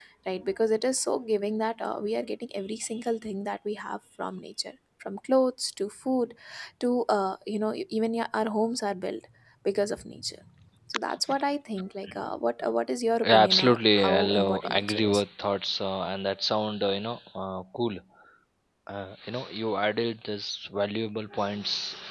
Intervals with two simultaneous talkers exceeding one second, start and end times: 13.2-15.2

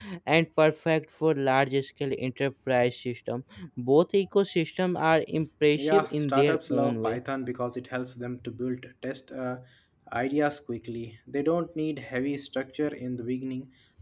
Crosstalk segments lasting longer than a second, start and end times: 5.8-7.2

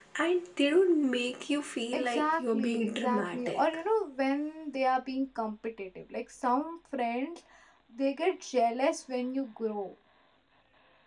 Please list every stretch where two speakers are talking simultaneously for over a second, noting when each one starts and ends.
1.9-3.6

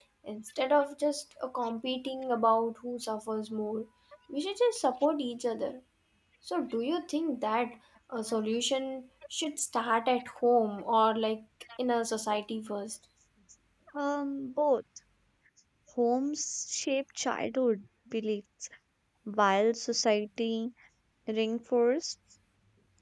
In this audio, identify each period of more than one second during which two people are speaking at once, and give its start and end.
none

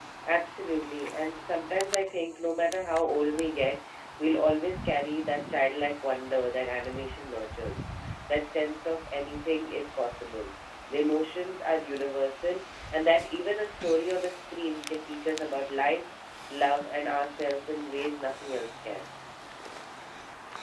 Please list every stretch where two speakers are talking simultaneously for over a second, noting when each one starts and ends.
none

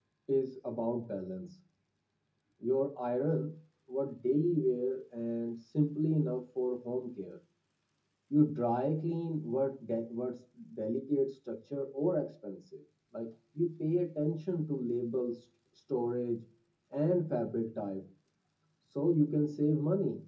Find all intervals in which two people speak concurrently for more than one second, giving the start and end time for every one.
none

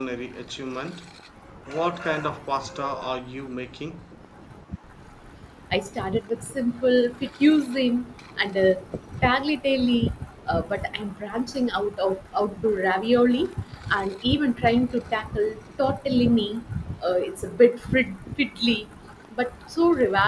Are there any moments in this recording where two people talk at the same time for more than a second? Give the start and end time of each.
none

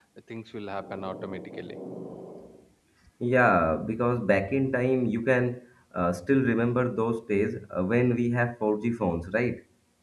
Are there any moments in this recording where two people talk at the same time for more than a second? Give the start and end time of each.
none

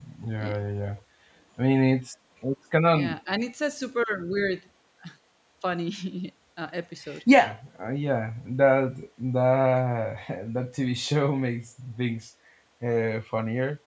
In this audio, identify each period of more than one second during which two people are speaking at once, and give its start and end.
none

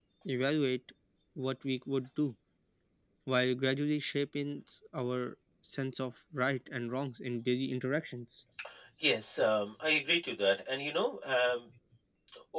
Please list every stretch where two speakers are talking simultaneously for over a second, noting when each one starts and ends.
none

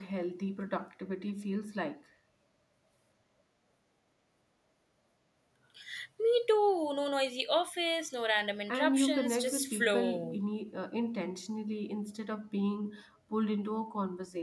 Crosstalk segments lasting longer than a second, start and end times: 8.7-10.4

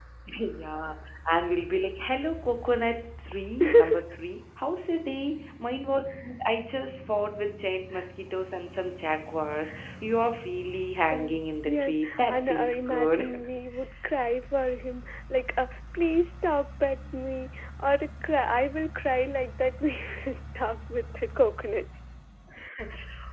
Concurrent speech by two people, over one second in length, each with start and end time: 11.1-13.2

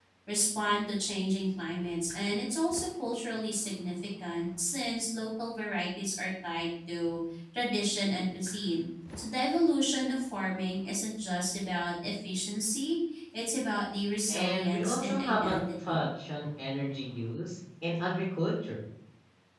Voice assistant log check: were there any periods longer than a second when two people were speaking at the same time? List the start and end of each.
14.3-16.0

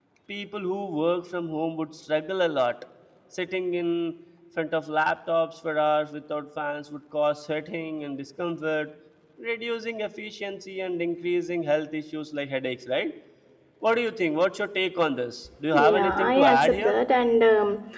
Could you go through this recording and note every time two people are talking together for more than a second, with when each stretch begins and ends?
15.7-16.9

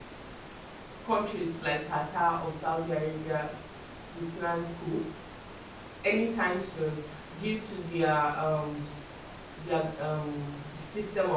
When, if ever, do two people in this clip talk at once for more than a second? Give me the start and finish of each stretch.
none

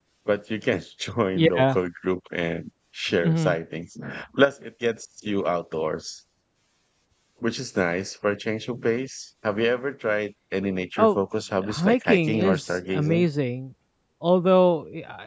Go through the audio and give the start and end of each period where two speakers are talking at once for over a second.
11.7-13.3

